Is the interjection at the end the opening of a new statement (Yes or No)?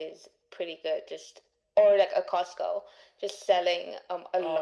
No